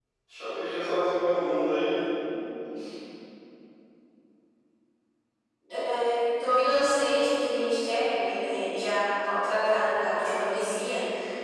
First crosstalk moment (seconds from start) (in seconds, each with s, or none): none